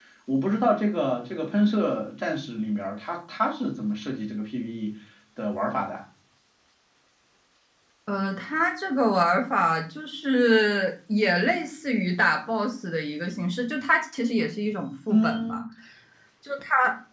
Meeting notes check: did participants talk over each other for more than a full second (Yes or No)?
No